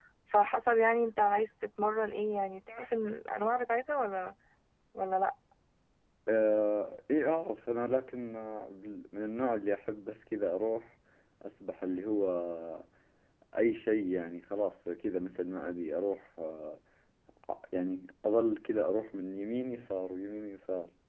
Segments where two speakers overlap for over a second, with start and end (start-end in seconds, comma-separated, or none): none